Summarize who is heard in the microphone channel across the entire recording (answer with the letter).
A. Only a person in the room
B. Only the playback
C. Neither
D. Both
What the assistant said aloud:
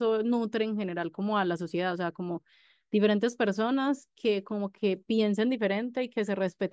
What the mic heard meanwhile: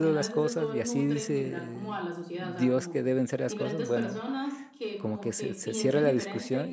D